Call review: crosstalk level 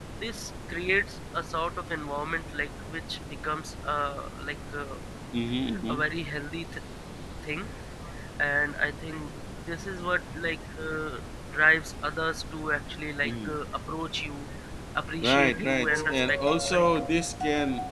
present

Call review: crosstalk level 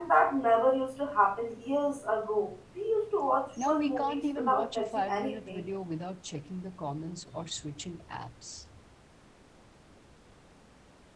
present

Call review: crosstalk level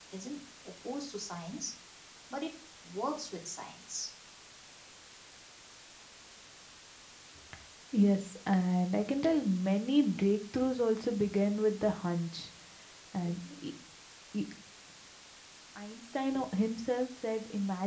none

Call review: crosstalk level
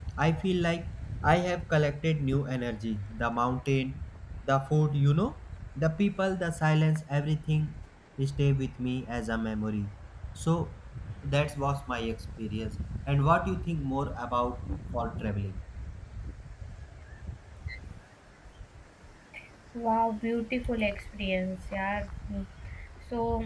none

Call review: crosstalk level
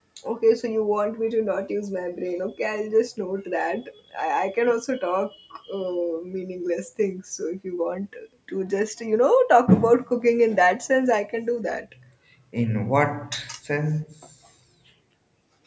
none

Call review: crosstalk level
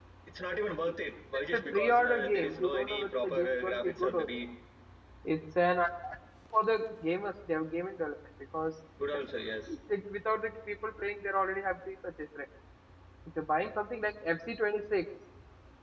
present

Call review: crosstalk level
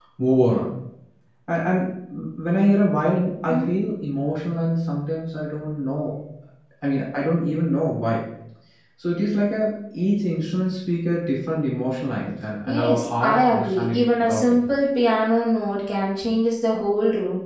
present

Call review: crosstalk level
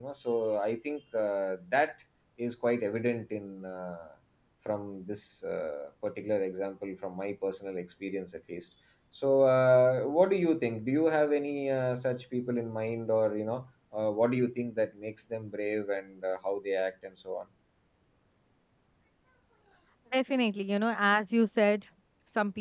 none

